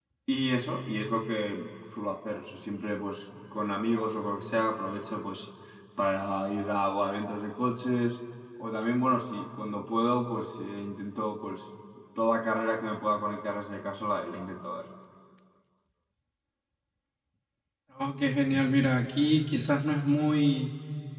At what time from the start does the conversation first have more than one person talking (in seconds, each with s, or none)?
none